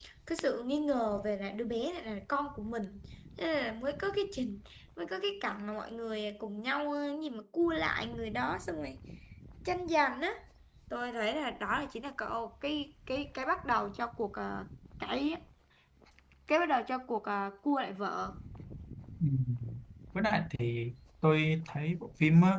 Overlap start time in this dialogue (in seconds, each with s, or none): none